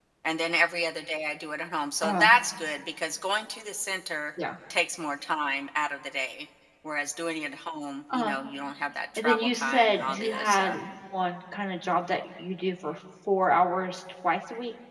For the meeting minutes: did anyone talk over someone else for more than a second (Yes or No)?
Yes